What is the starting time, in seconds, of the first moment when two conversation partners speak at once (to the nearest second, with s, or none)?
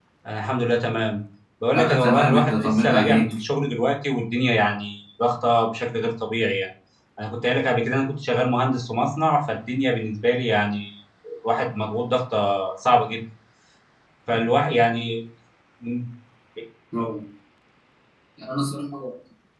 2 s